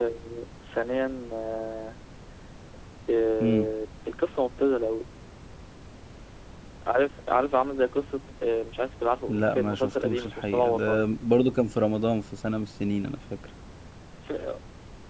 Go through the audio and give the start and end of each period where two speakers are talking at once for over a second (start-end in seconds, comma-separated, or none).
9.3-11.1